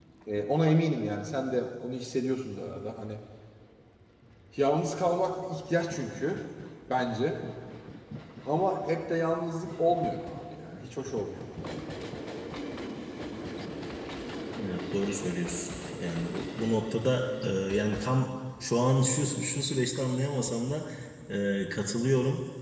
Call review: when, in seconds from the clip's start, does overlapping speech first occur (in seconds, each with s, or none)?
none